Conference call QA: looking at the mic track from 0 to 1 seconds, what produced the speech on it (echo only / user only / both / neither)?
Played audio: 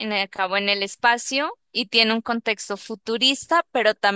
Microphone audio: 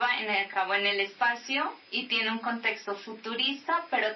echo only